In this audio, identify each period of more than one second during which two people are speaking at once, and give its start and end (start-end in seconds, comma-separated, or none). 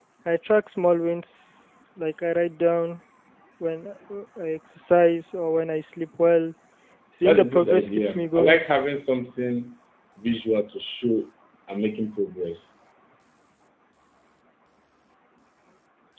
7.2-8.6